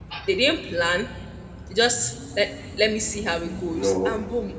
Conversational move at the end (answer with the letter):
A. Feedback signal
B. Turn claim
A